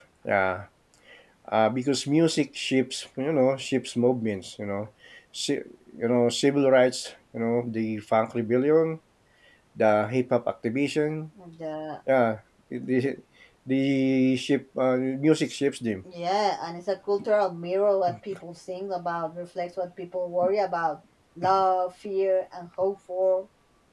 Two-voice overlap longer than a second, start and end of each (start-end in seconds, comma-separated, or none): none